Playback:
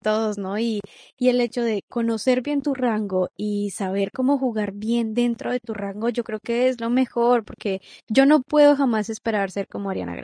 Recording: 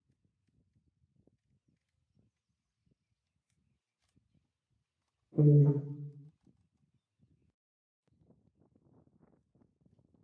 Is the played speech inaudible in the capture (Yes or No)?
Yes